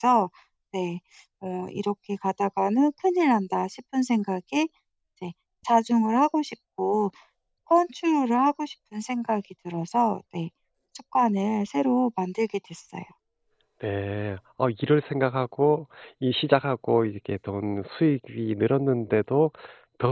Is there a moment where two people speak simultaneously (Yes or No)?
No